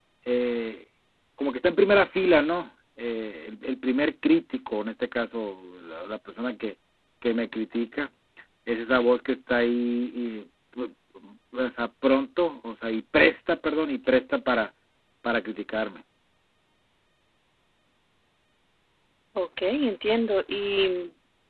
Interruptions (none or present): none